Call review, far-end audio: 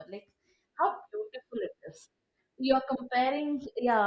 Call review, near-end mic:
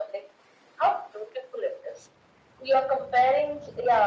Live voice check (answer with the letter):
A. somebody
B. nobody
B